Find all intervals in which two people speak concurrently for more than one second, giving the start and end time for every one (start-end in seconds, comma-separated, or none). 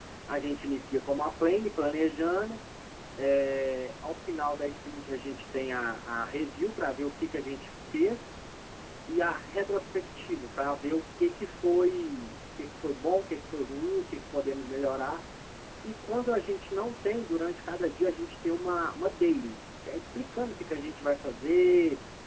none